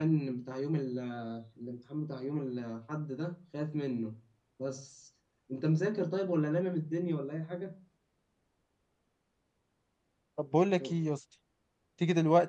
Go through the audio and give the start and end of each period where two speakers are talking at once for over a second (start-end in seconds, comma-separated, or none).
none